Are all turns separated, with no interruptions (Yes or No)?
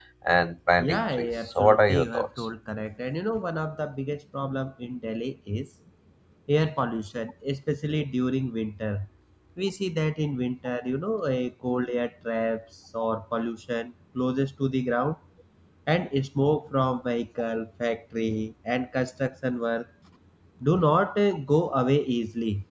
No